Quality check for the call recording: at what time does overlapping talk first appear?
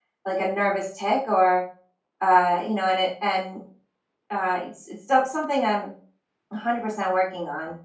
none

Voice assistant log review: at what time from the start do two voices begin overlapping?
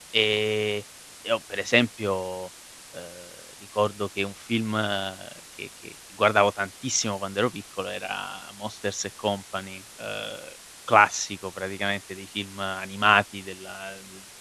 none

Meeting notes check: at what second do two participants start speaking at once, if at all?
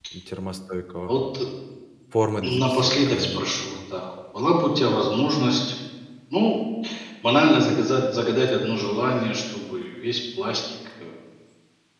2.4 s

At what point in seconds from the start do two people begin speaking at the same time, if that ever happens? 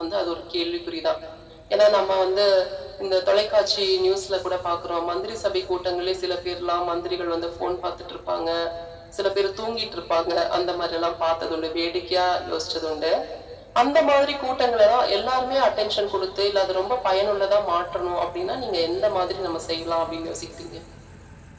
none

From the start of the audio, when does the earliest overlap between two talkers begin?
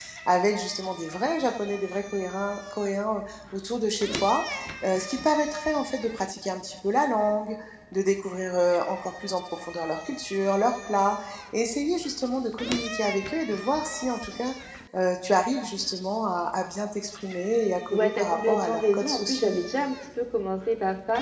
17.9 s

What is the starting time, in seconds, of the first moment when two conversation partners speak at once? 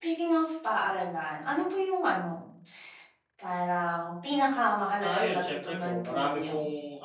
5.0 s

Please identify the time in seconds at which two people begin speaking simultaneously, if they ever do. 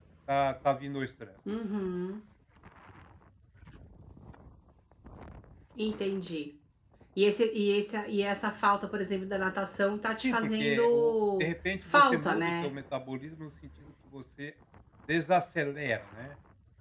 10.2 s

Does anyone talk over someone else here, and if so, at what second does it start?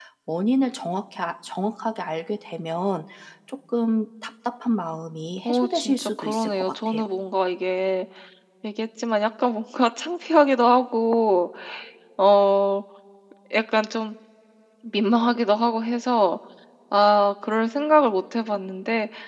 5.4 s

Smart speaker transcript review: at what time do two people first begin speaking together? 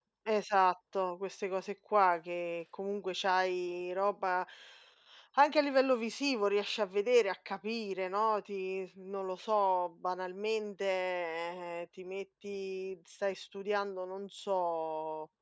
none

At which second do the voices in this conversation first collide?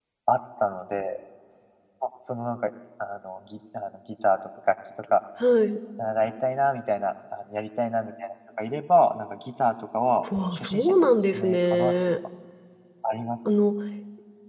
10.3 s

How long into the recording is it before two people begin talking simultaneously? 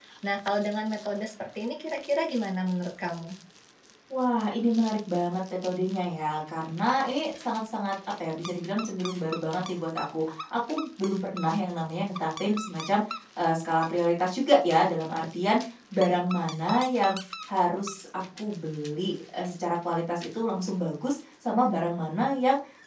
none

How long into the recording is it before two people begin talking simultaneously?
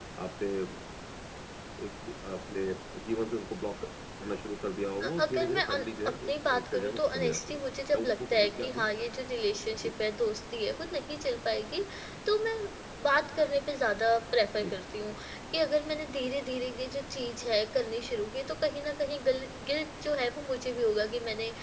5.0 s

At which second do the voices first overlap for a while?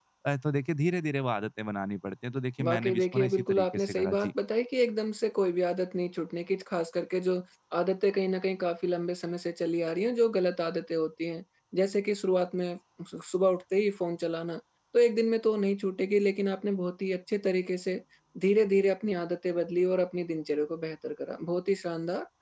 2.6 s

